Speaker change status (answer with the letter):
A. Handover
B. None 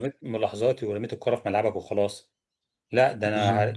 B